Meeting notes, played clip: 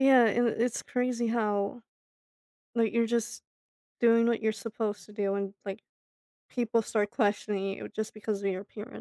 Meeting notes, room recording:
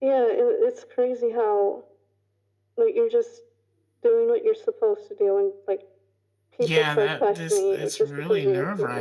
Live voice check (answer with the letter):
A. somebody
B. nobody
A